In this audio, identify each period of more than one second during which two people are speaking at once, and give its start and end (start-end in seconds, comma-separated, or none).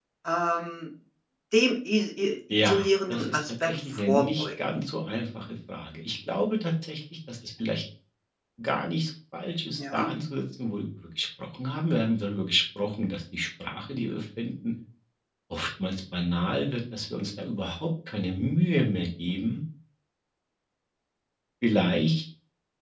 2.6-4.4